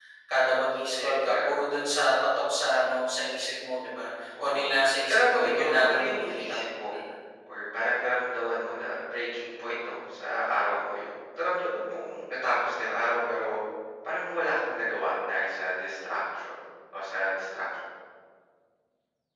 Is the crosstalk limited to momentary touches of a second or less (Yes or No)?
No